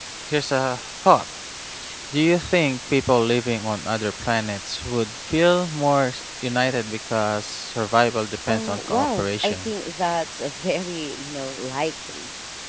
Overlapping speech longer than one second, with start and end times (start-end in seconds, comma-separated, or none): 8.5-9.7